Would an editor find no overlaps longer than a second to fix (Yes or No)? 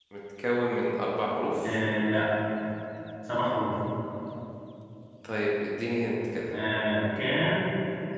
Yes